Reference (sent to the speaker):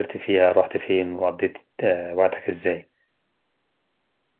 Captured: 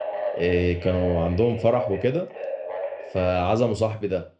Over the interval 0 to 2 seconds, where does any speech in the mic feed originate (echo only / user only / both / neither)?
both